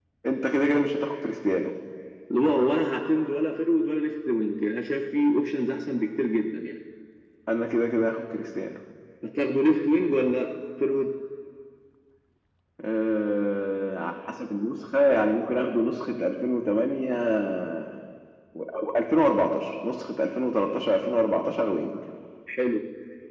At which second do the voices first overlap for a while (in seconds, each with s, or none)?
none